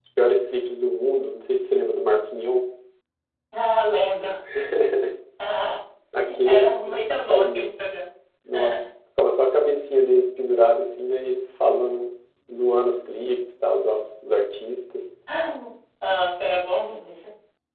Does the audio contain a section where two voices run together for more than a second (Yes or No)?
Yes